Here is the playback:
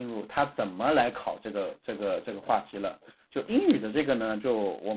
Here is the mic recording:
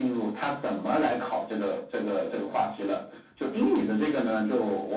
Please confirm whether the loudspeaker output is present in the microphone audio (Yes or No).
Yes